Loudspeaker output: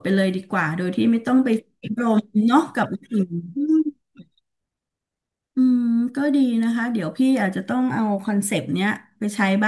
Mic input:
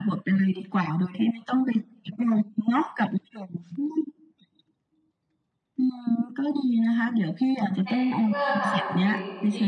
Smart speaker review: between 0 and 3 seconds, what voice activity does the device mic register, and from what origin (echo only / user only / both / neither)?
echo only